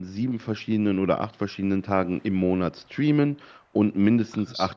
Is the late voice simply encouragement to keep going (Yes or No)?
Yes